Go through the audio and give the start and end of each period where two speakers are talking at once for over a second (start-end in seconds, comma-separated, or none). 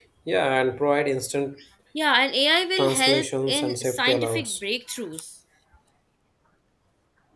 2.8-4.5